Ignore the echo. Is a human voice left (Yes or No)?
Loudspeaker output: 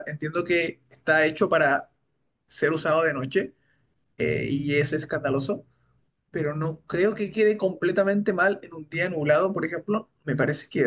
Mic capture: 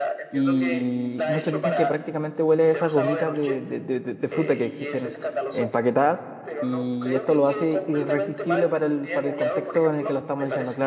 Yes